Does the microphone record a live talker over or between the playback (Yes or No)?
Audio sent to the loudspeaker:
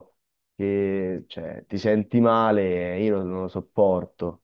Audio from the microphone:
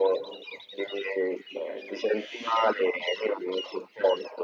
No